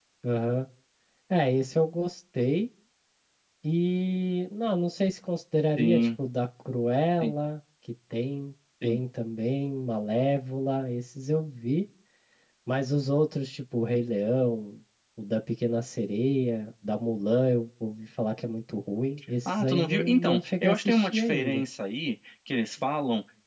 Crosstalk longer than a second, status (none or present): present